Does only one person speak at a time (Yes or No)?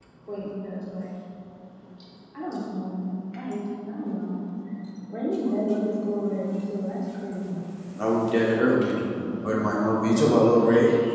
Yes